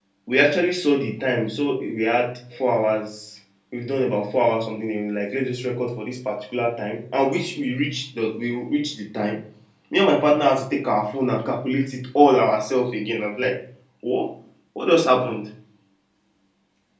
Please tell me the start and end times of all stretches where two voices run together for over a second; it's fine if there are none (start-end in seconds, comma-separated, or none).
none